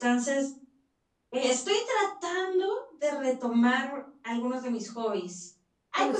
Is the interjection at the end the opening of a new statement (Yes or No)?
No